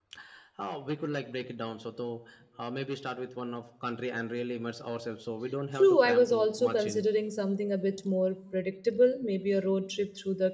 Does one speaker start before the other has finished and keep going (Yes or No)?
Yes